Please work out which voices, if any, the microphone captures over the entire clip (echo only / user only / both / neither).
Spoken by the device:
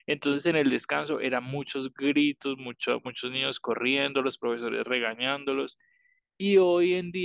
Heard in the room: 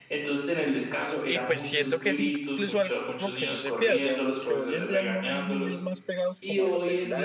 both